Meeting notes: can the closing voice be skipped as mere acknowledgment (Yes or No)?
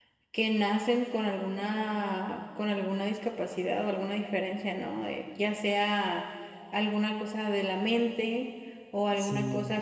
Yes